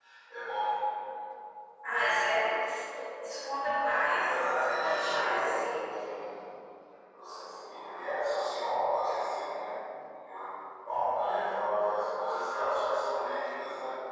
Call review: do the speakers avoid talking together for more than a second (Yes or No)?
No